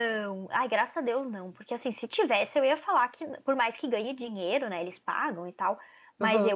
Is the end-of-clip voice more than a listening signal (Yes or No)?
No